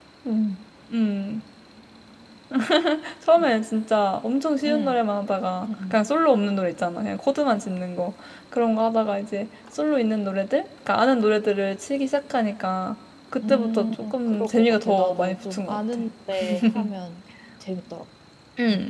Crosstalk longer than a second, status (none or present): present